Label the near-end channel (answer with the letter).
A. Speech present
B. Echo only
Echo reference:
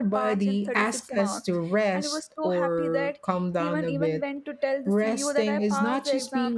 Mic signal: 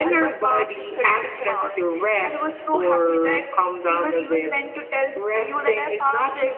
B